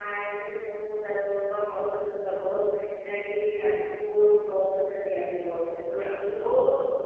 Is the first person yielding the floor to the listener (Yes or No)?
Yes